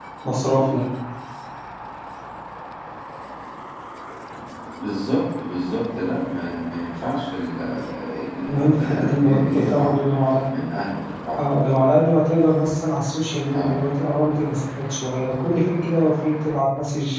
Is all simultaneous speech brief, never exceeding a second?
No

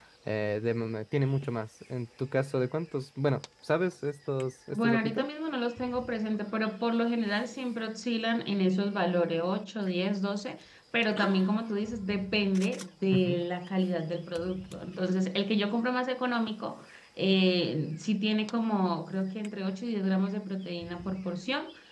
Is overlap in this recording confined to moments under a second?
Yes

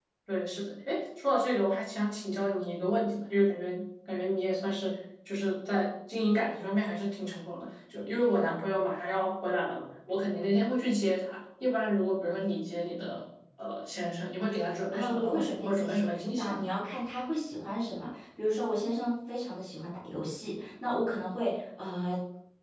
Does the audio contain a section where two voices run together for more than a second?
Yes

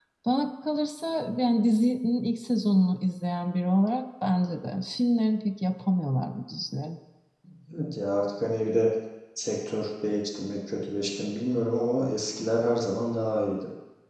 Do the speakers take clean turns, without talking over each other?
Yes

